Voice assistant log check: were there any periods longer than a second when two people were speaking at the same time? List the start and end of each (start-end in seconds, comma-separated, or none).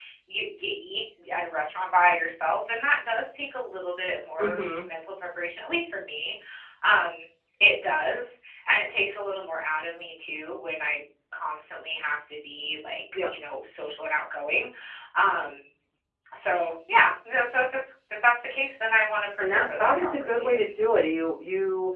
19.4-20.6